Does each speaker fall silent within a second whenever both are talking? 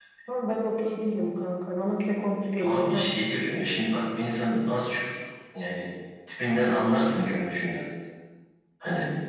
Yes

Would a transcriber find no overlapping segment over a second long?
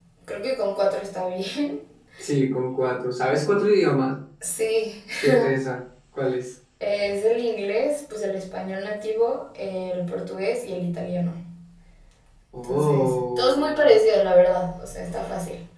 No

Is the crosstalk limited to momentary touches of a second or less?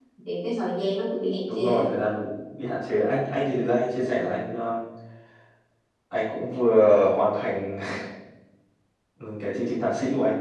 Yes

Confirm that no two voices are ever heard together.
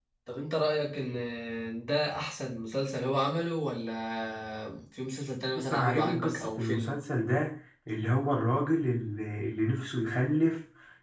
No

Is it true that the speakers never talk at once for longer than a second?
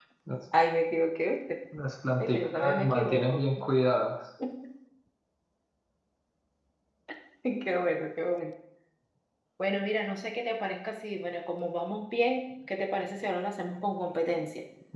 No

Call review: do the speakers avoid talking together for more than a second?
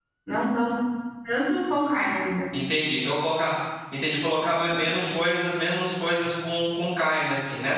Yes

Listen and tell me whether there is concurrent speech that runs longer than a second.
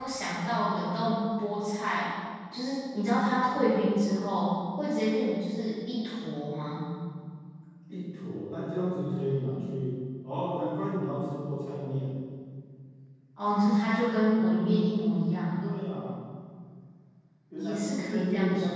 Yes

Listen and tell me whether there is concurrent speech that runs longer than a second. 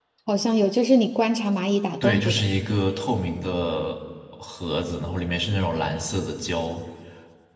No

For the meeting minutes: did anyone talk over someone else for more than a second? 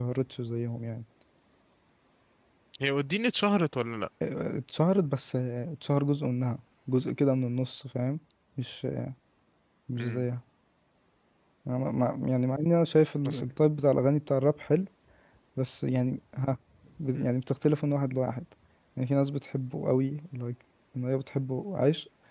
No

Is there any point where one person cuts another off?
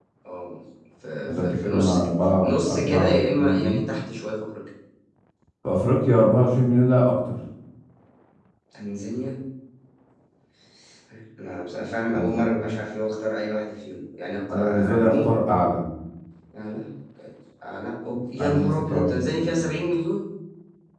Yes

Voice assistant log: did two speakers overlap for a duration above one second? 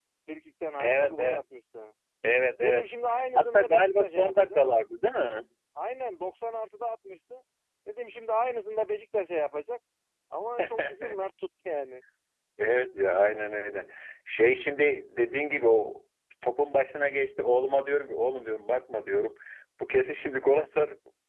Yes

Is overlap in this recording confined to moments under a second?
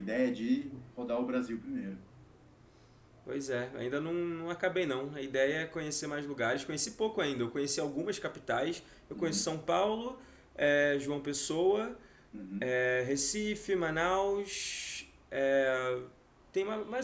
Yes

